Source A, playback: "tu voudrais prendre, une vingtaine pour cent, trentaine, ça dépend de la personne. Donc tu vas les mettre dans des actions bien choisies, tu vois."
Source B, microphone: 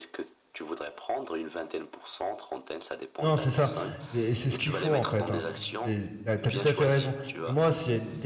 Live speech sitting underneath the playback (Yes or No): No